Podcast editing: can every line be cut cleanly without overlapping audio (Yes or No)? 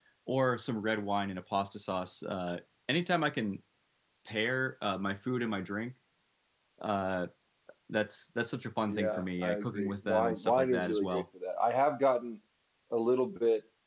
No